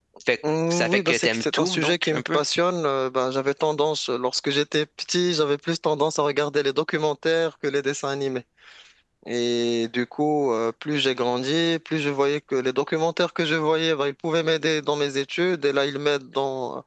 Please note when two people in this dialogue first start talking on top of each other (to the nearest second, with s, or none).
1 s